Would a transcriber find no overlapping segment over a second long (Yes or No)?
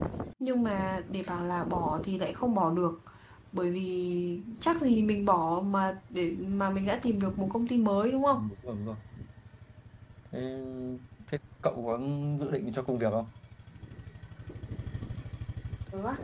Yes